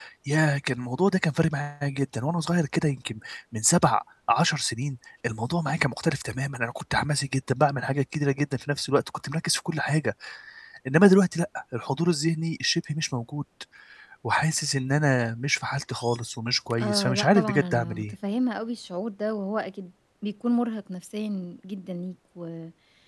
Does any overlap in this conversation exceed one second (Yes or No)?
Yes